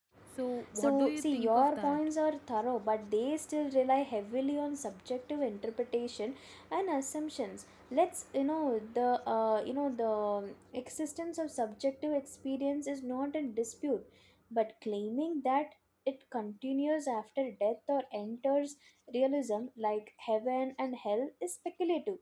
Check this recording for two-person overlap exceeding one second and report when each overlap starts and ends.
0.7-2.0

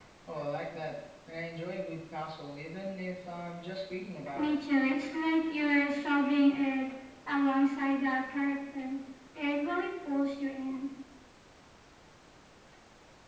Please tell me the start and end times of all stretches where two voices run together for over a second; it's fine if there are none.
none

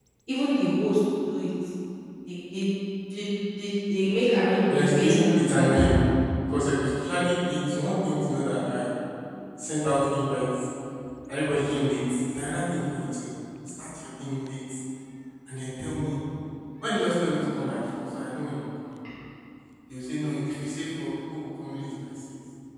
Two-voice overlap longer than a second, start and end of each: 4.7-5.9

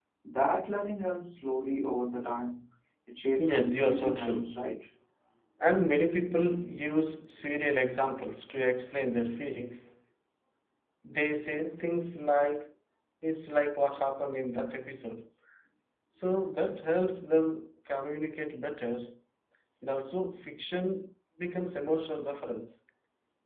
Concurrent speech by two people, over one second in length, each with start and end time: 3.4-4.6

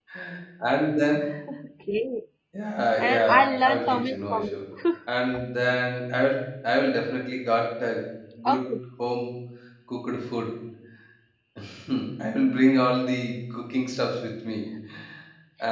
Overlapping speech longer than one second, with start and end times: 3.0-4.6

